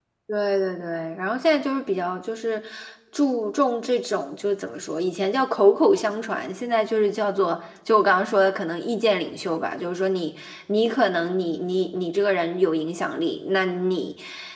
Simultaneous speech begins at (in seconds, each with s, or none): none